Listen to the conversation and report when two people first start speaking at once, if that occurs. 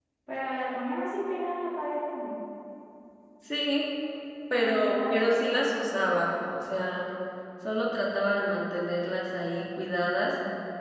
4.5 s

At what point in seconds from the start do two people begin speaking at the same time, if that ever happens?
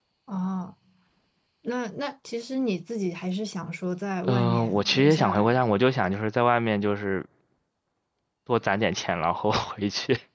4.2 s

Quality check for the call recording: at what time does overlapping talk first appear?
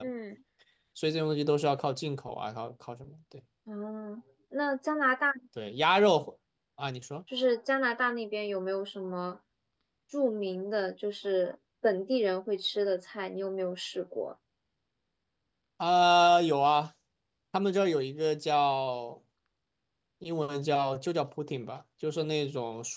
none

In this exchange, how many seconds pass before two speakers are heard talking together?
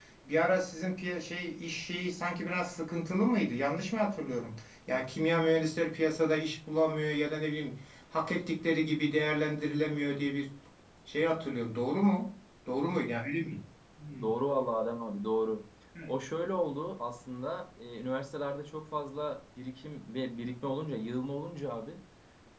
none

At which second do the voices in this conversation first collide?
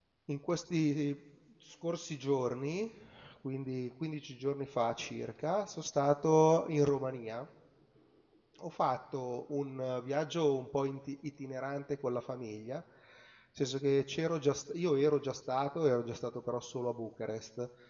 none

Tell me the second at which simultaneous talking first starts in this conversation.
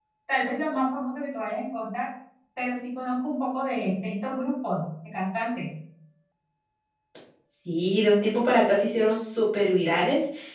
none

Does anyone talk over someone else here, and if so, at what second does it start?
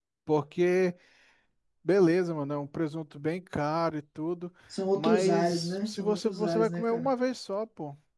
5.0 s

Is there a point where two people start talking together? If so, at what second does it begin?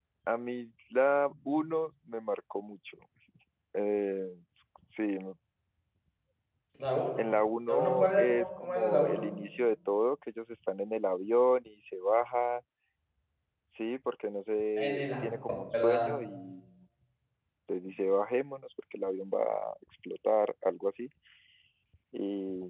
7.7 s

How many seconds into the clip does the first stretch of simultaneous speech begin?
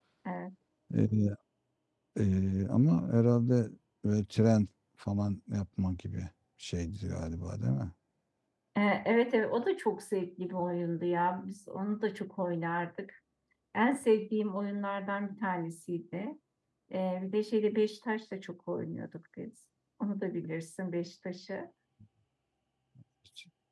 none

